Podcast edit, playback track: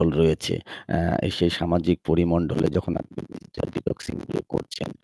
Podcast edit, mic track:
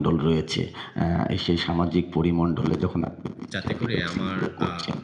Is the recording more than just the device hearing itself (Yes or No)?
Yes